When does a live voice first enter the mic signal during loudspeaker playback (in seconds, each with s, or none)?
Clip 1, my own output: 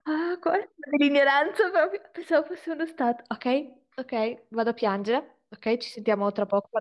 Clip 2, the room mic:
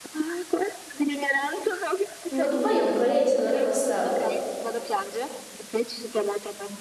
2.3 s